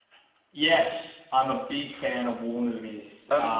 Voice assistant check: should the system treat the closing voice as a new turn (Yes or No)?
No